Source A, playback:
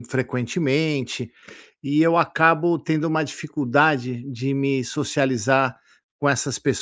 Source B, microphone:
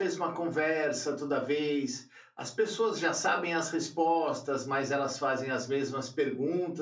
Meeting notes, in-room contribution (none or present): present